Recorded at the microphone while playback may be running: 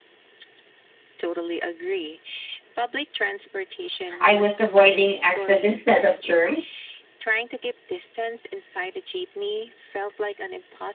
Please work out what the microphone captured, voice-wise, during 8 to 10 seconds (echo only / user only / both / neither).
echo only